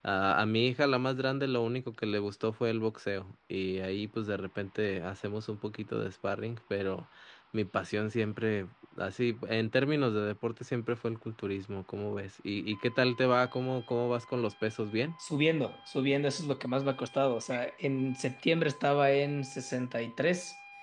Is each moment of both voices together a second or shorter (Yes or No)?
Yes